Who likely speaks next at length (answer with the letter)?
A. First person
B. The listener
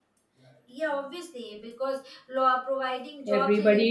B